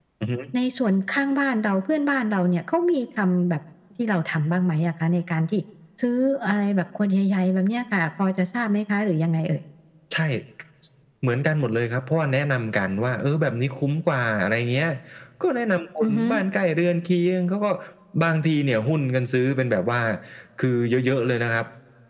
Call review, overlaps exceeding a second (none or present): none